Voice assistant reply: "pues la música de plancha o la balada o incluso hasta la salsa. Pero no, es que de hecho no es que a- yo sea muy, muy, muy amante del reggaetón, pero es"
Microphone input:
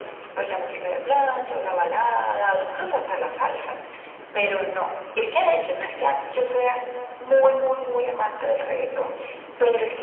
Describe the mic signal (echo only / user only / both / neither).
echo only